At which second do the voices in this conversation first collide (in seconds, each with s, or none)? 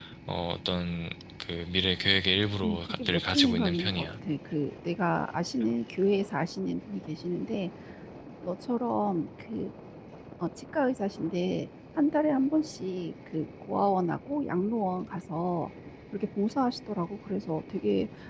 2.6 s